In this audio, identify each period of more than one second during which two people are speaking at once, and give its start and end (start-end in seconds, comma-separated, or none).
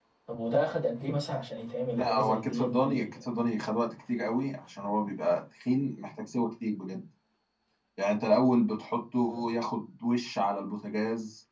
1.9-3.2